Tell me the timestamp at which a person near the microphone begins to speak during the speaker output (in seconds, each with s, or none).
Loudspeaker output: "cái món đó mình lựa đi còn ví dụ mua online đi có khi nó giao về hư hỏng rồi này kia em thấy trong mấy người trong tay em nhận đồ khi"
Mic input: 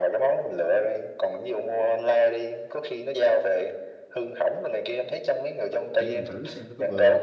6.0 s